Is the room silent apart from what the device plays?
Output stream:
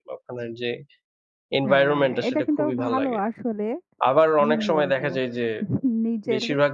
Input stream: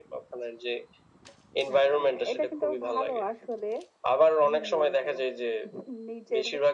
Yes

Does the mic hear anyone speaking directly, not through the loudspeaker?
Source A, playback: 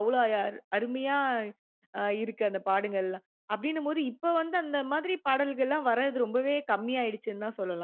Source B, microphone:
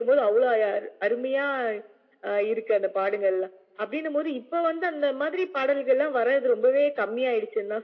No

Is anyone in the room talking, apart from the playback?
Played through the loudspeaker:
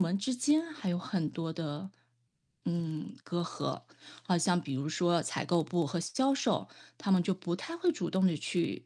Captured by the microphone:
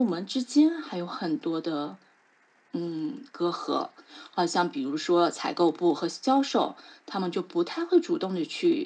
No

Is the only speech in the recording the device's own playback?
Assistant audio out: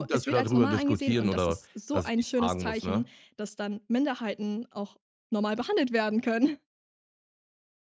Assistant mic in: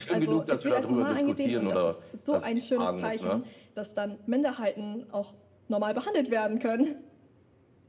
Yes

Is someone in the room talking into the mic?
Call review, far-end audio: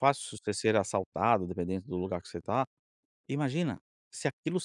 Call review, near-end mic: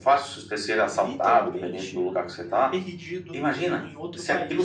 Yes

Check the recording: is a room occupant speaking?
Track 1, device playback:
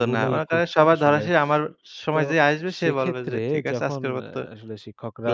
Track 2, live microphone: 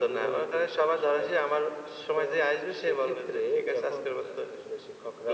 No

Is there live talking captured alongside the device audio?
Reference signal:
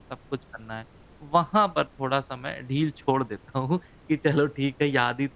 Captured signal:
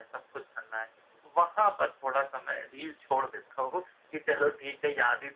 No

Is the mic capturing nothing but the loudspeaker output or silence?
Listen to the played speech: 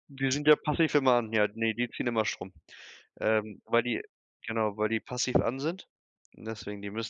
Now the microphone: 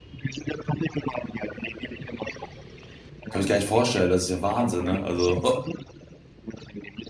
No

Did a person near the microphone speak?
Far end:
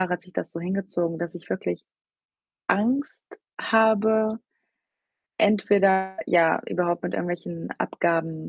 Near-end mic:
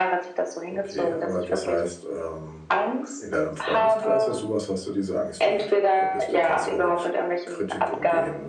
Yes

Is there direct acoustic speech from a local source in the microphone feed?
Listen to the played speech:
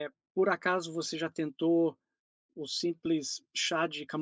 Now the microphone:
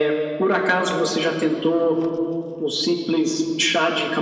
No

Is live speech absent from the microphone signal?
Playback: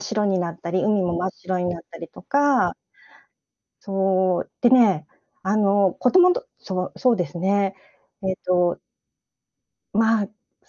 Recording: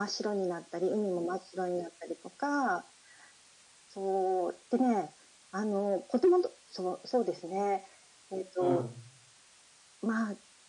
No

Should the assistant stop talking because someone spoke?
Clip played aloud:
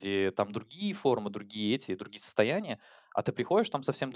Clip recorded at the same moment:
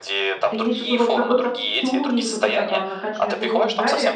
Yes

